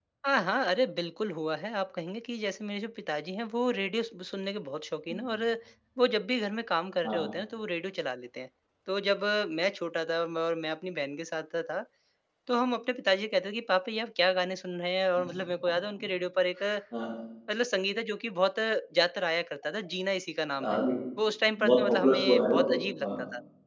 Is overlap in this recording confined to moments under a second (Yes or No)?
No